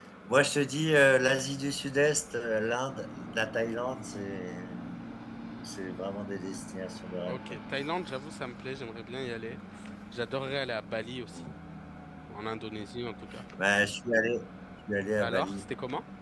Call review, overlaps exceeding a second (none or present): none